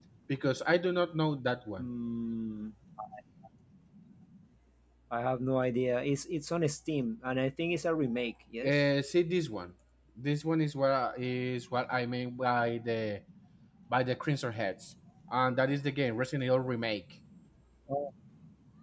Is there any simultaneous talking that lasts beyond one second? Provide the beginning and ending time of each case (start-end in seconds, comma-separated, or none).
none